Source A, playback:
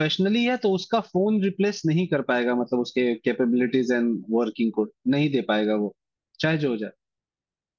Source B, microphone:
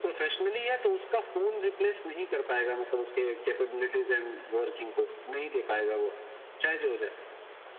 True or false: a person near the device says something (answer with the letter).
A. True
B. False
B